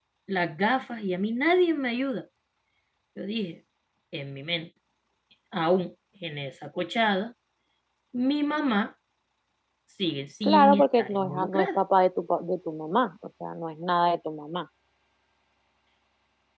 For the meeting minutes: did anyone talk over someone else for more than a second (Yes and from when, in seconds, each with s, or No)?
Yes, from 10.4 s